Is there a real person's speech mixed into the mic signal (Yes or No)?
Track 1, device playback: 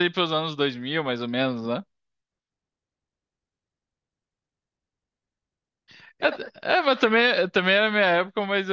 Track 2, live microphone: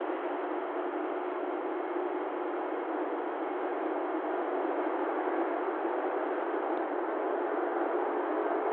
No